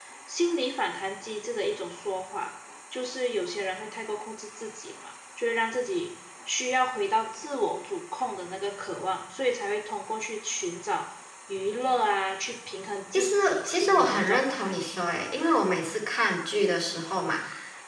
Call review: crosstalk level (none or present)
present